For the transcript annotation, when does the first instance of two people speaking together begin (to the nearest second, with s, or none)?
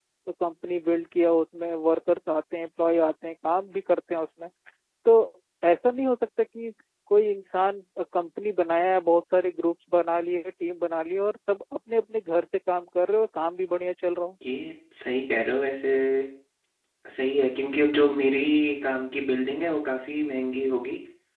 none